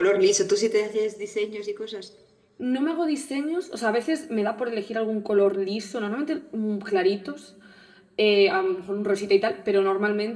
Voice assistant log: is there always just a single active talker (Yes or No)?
Yes